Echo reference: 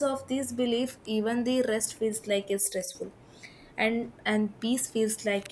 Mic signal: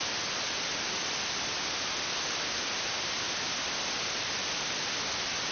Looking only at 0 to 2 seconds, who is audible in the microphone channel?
neither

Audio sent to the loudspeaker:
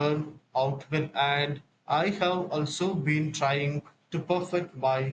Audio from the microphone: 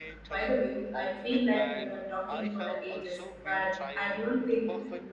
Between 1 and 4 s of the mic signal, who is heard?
both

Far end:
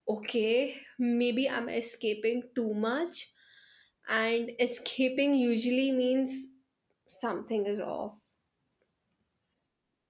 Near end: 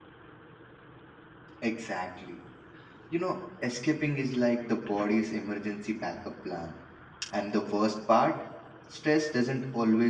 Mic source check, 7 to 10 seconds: user only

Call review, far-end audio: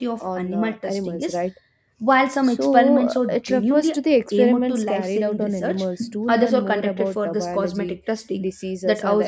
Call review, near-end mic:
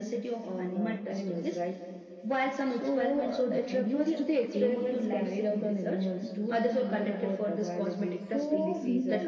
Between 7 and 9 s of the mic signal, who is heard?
both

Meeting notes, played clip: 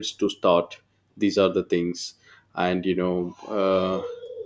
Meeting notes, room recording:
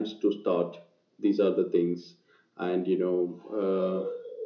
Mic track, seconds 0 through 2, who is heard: echo only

